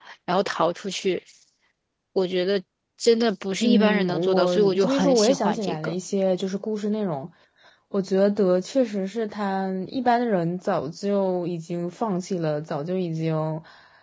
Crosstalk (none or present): present